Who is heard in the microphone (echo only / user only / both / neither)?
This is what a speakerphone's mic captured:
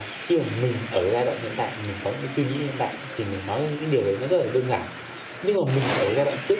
user only